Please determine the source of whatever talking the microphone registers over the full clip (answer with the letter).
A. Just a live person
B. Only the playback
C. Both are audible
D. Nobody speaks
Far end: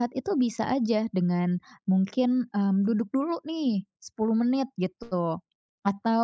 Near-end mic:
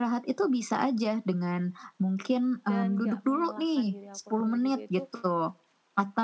C